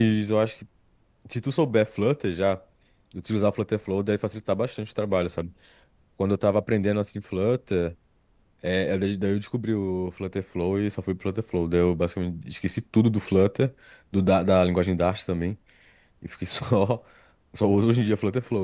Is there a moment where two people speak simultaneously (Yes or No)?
No